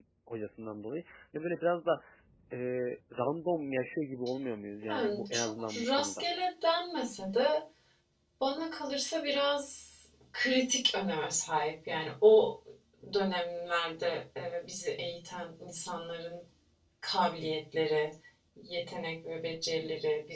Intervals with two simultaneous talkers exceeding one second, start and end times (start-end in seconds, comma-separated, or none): 4.9-6.2